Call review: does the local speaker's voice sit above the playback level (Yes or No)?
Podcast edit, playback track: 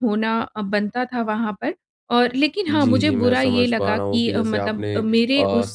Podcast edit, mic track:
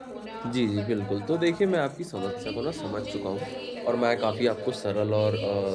Yes